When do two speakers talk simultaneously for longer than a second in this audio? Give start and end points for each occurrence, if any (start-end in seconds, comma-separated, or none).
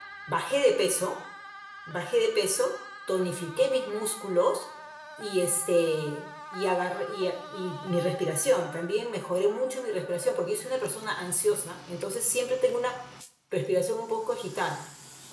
none